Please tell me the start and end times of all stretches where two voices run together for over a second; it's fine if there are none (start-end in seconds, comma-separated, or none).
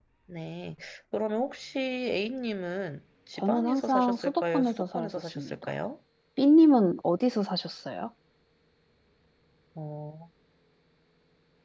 3.4-5.7